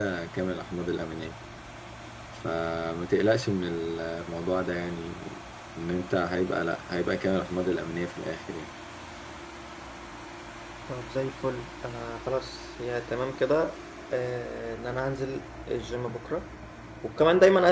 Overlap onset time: none

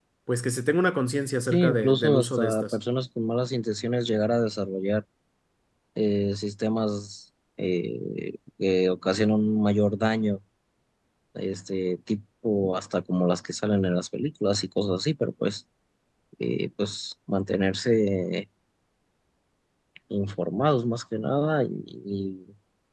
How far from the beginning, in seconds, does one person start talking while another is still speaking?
1.5 s

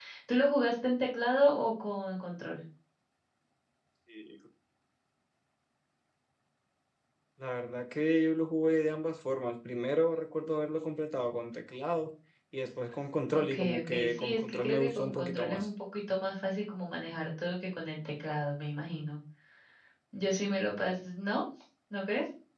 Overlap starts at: 13.3 s

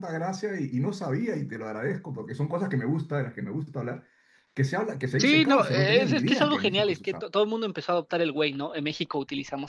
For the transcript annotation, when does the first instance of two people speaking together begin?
5.2 s

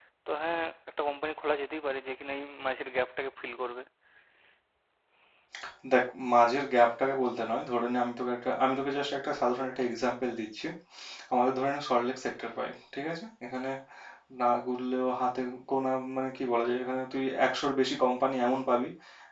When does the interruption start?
none

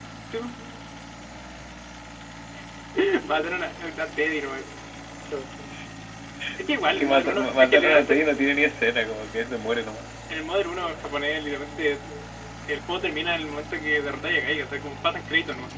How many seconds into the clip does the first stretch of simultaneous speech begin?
7.0 s

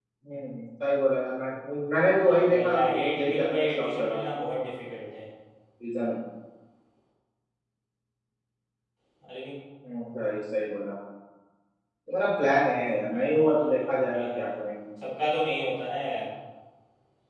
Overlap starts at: 2.2 s

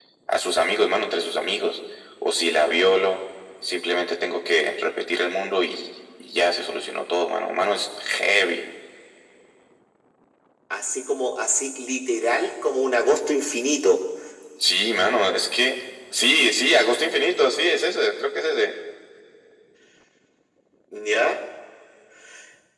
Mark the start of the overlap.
none

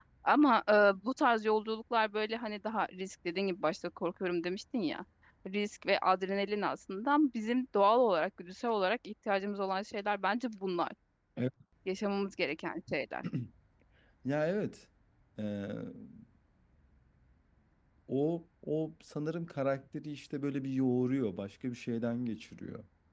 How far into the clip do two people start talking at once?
none

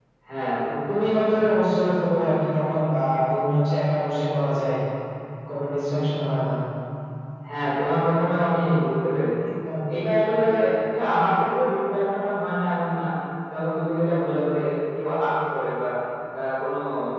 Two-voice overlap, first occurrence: none

